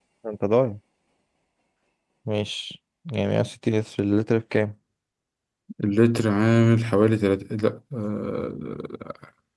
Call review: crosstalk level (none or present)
none